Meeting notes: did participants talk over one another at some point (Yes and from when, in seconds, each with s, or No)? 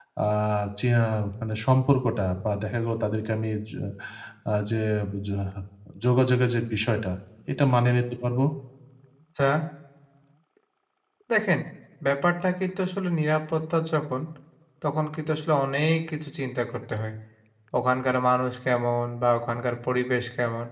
No